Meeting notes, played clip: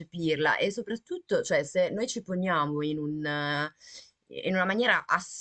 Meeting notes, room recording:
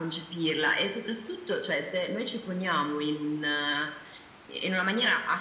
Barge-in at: none

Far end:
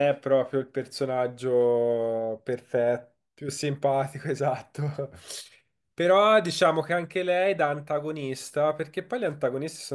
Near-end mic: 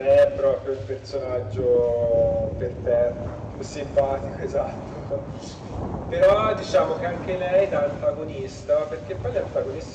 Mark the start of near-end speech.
none

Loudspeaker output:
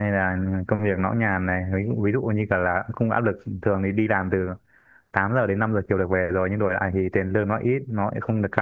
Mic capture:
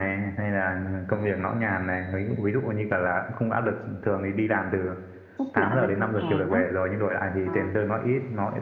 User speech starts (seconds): 5.4 s

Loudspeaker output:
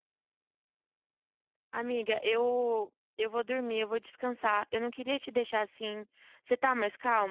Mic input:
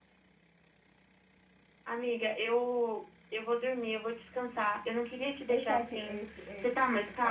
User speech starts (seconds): 5.5 s

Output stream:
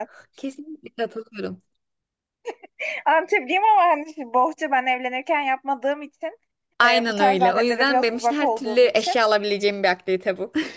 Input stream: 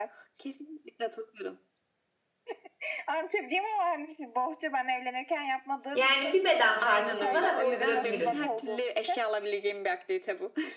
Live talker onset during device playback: 5.9 s

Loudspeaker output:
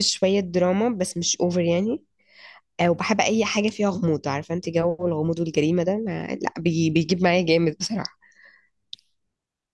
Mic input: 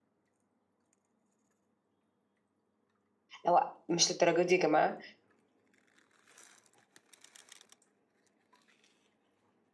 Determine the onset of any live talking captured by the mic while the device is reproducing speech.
3.4 s

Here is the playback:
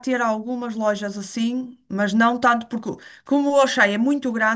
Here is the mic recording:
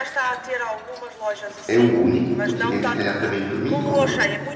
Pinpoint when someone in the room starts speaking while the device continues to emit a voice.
1.7 s

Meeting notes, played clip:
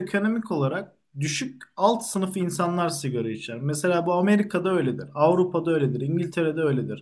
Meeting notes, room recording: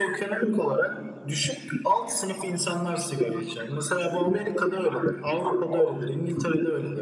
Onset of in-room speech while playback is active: none

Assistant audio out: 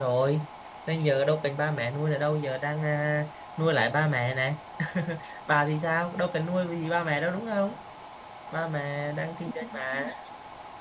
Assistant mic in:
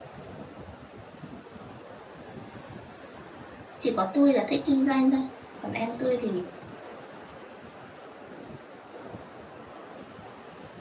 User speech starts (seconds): 3.8 s

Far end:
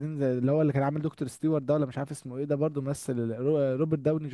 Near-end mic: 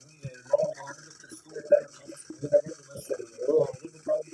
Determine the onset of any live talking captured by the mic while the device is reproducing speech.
none

